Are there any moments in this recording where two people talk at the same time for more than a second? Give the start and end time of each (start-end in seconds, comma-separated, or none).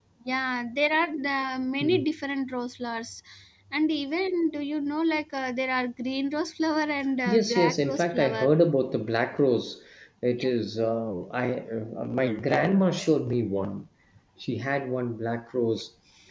7.3-8.5